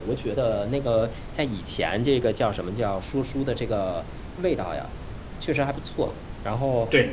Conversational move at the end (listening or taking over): taking over